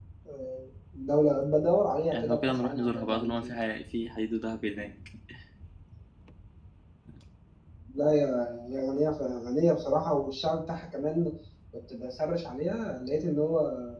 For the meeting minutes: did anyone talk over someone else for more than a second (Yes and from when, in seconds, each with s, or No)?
Yes, from 2.1 s